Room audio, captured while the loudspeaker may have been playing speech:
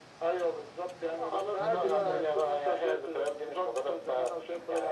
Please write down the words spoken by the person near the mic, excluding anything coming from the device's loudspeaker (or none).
هنقول